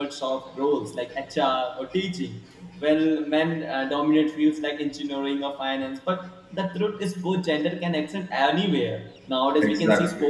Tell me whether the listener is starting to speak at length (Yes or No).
No